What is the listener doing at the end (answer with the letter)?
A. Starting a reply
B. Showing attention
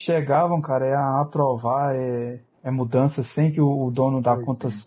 B